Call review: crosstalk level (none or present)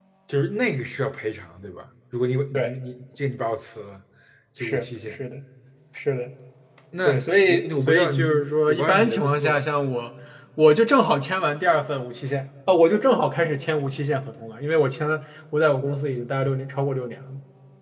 present